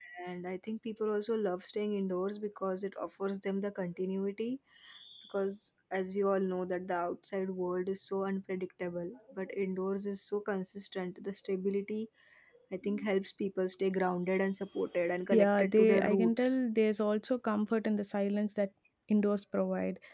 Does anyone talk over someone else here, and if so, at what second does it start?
15.3 s

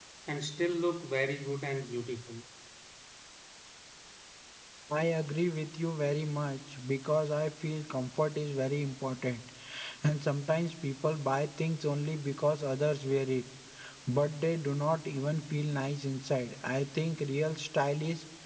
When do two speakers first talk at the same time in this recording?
none

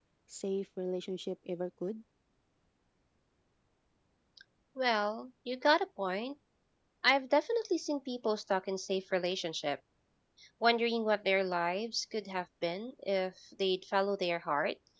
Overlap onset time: none

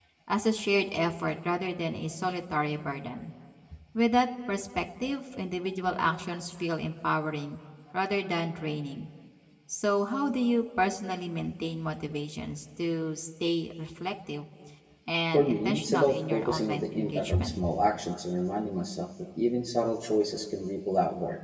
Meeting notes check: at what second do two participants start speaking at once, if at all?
15.3 s

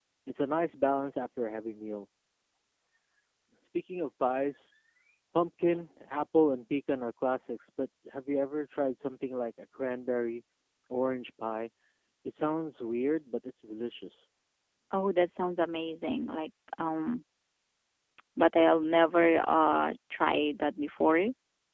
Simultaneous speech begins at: none

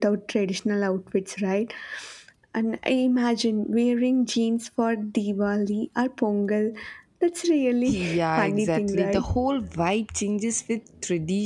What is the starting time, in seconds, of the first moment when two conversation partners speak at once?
7.9 s

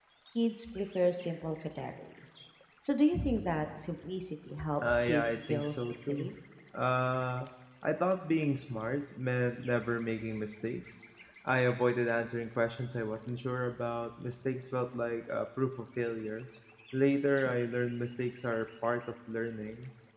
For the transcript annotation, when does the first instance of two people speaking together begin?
4.8 s

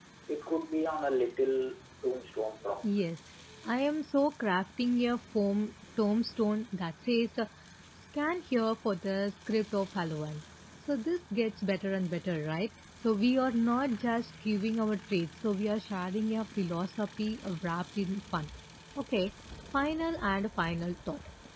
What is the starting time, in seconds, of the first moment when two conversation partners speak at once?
none

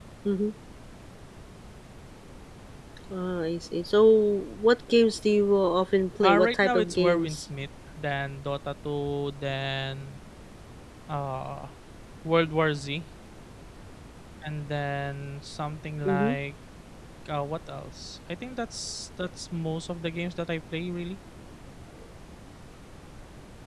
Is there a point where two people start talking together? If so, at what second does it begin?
6.2 s

